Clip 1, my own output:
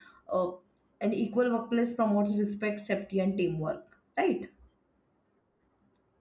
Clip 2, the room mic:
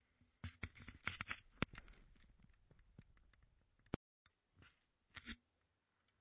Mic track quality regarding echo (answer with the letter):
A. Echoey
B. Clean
B